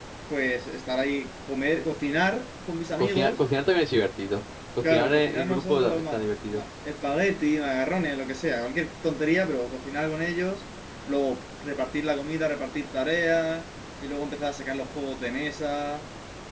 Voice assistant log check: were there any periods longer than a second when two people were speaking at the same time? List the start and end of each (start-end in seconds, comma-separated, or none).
4.8-6.6